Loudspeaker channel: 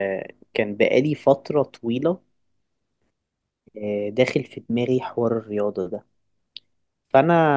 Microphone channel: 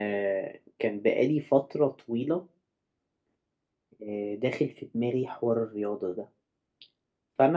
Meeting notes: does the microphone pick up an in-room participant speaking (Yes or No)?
No